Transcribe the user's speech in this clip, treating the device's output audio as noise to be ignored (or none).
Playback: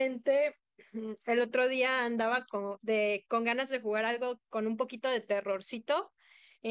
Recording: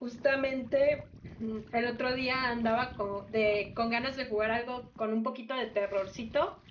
none